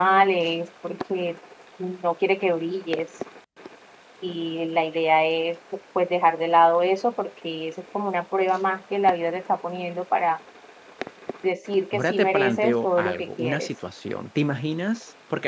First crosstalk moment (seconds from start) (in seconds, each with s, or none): 11.9 s